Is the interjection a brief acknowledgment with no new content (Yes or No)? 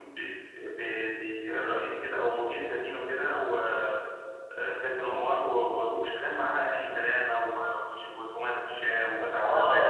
No